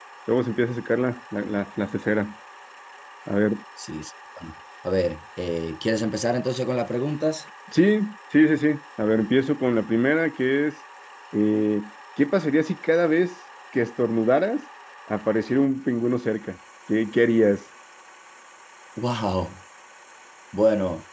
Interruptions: none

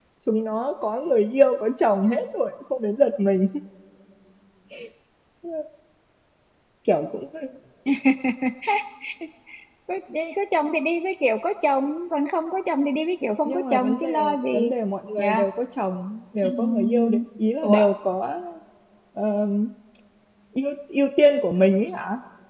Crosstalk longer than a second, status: present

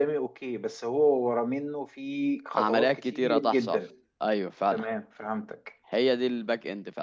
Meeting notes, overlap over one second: present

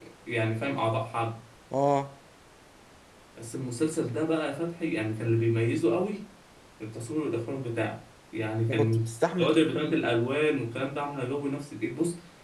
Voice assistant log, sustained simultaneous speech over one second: present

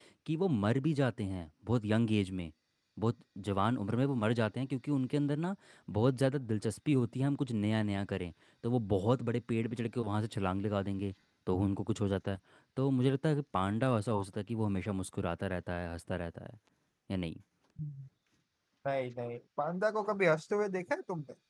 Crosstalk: none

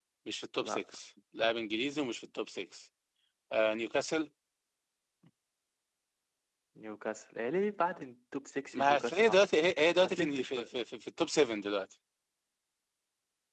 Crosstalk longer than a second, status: present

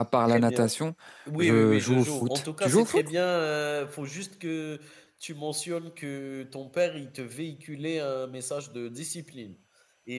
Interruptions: present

